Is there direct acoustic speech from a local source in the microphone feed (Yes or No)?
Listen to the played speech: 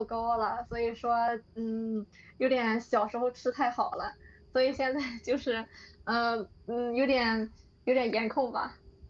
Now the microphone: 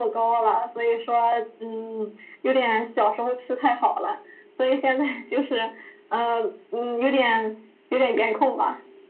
No